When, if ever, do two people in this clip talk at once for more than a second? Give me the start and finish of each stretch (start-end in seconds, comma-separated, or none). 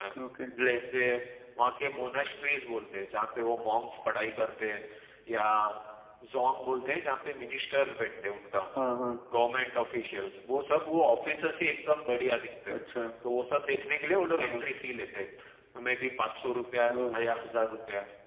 none